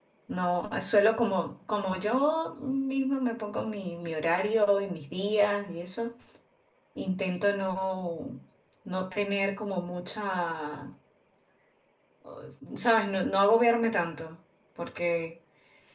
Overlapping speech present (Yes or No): No